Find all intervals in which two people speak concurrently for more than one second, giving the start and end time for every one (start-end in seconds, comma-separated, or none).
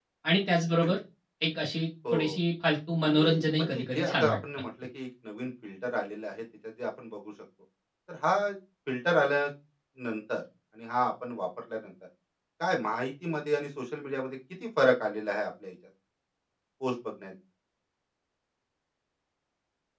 3.1-4.4